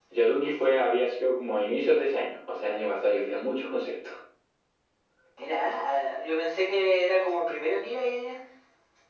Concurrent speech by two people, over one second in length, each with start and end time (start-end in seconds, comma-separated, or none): none